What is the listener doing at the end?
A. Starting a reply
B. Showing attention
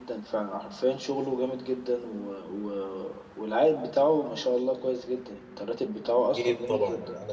A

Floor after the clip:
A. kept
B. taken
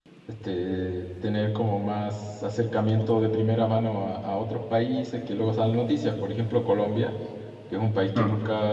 A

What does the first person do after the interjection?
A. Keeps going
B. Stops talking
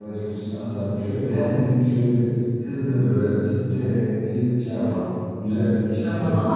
B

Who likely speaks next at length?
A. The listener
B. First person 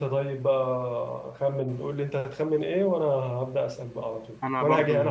B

